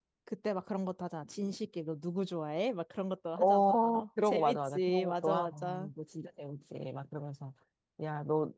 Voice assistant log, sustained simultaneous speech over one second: present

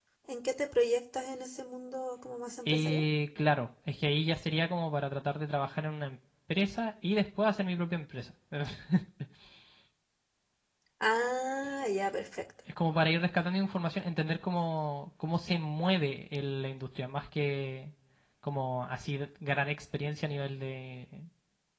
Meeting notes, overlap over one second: none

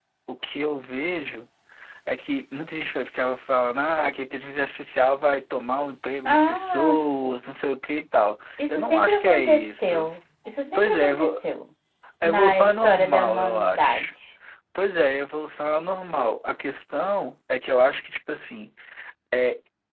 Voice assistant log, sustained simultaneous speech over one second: present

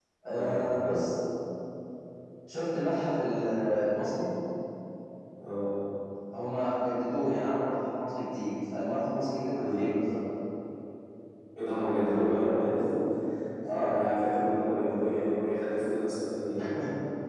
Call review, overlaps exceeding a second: none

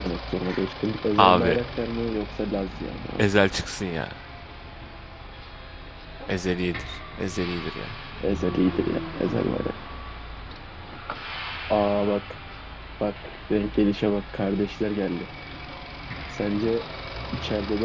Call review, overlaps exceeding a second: none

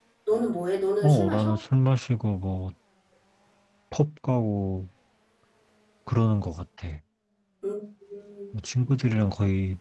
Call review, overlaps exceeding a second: none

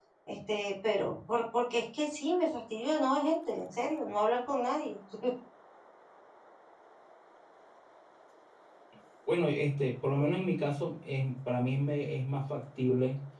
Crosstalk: none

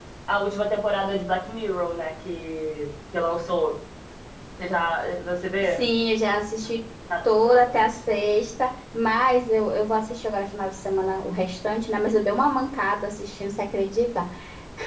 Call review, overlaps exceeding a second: none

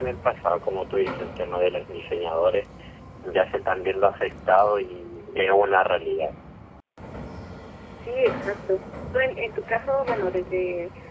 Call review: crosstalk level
none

